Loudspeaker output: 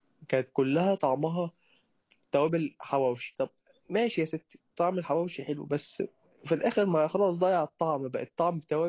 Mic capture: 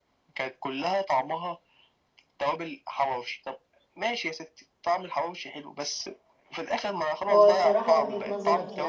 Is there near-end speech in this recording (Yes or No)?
Yes